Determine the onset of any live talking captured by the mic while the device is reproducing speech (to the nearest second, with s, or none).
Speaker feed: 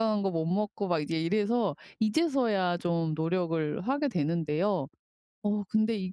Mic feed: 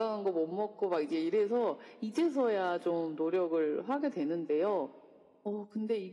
none